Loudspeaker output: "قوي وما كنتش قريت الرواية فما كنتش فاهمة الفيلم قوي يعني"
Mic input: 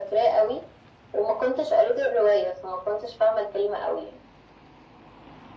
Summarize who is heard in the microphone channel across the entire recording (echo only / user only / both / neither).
echo only